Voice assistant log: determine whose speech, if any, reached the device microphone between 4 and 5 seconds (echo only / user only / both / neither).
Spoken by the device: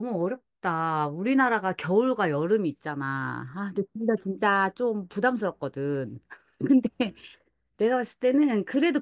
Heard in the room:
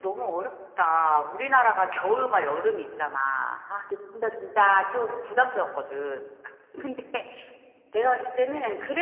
echo only